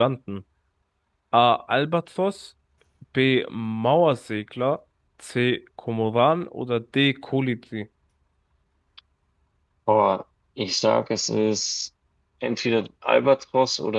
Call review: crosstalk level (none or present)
none